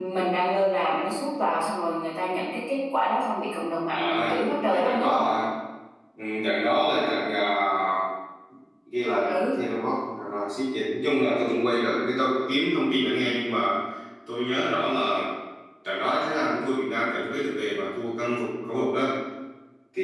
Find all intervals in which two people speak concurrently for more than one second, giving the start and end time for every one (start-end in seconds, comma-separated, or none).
3.9-5.2